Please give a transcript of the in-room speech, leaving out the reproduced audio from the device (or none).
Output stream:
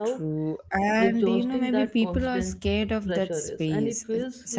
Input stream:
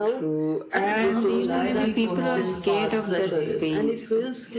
And I'm glad we crossed path today.